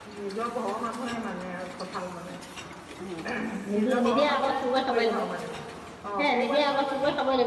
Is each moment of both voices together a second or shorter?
No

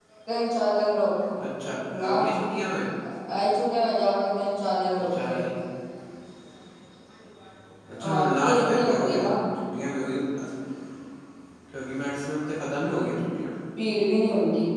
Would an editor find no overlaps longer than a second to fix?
No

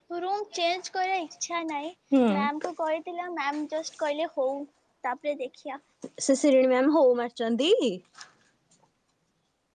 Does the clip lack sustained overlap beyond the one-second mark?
Yes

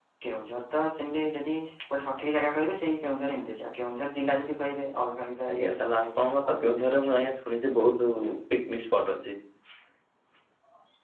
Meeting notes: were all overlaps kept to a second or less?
No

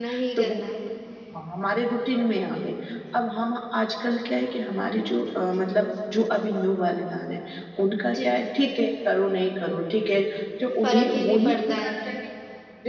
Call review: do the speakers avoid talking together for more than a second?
No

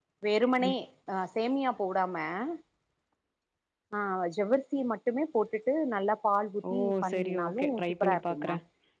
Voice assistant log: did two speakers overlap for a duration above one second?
Yes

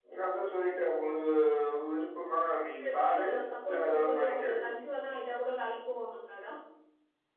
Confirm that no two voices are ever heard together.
No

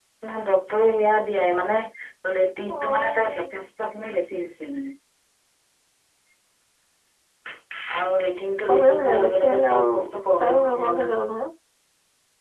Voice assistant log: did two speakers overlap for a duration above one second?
Yes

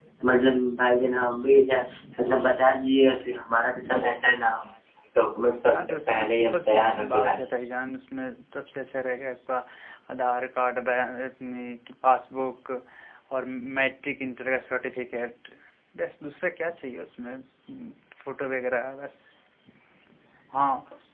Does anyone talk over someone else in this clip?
Yes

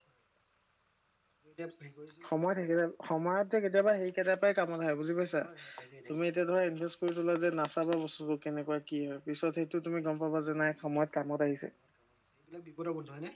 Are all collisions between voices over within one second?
Yes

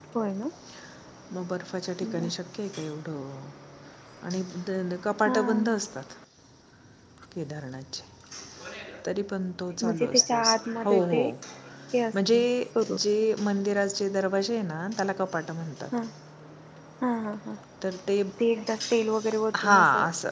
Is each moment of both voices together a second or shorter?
No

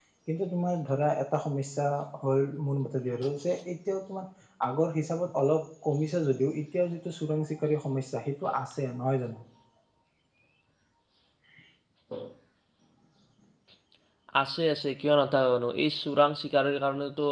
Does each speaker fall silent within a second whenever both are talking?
Yes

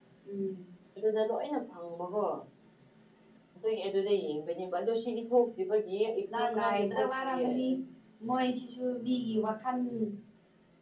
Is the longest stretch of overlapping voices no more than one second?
No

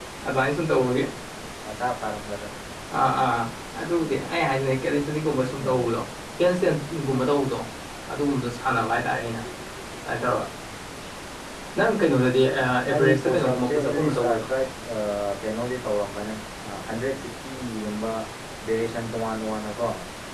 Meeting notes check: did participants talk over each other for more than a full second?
Yes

